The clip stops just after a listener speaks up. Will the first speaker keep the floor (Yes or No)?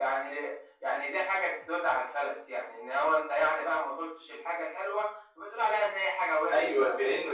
No